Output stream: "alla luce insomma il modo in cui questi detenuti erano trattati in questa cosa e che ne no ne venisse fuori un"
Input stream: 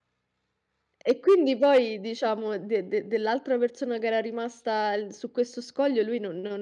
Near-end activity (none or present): present